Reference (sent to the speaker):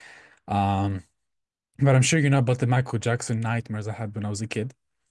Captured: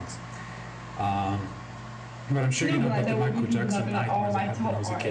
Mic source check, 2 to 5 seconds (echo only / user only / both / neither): both